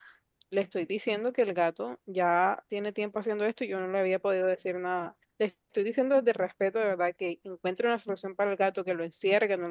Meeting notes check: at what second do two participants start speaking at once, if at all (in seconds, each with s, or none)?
none